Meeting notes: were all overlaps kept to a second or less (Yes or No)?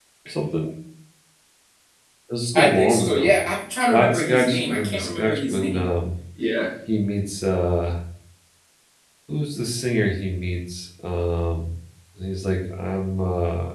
No